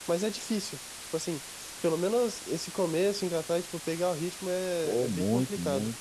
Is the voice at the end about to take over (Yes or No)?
Yes